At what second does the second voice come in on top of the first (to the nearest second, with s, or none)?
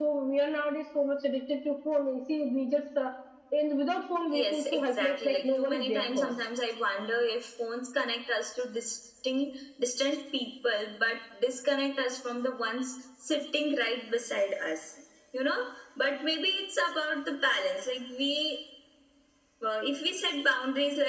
4 s